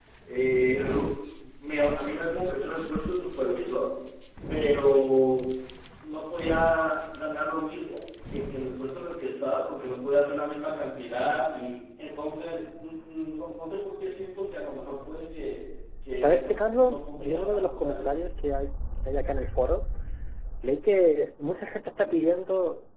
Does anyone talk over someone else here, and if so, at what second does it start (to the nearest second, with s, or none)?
16 s